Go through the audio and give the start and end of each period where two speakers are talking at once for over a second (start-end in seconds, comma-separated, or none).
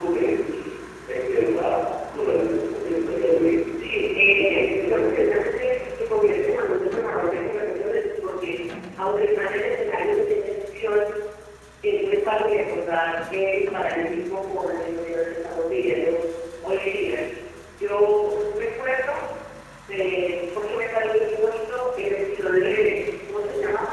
3.9-5.4